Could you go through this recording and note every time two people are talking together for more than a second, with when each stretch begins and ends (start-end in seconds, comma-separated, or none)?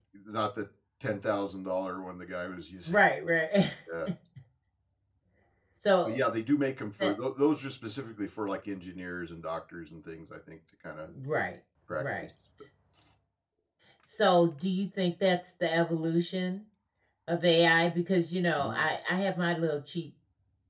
none